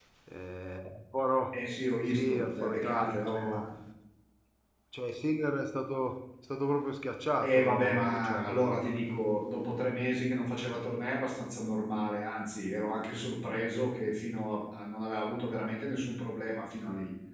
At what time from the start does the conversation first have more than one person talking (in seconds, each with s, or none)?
2.1 s